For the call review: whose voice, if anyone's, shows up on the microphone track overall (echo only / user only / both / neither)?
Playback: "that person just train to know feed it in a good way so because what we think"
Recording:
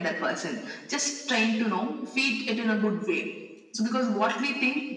echo only